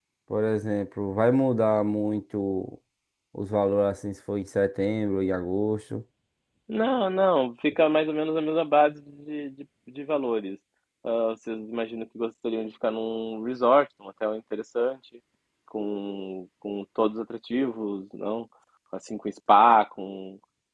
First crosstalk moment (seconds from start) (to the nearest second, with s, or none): none